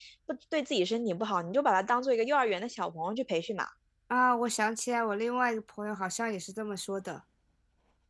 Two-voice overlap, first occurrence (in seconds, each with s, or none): none